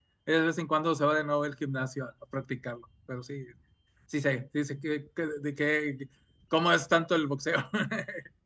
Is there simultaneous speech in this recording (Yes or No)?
No